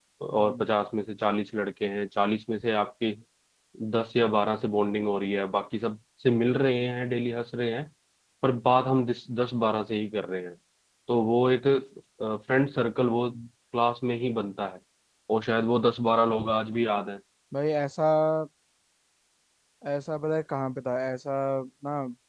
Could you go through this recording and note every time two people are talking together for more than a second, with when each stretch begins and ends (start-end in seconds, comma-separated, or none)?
none